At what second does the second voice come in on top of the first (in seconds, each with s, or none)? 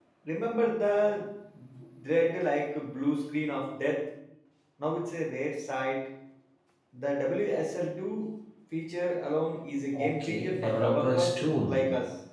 9.9 s